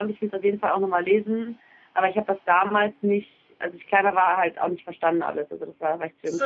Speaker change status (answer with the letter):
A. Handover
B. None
A